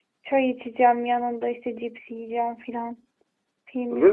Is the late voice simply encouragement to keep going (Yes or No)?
No